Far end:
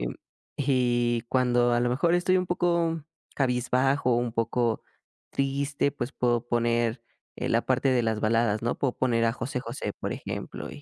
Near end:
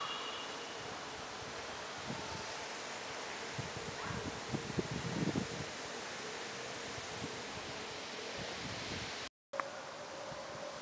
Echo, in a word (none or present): none